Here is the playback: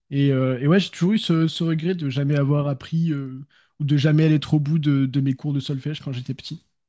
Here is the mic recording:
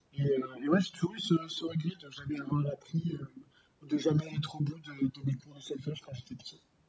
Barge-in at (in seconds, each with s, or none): none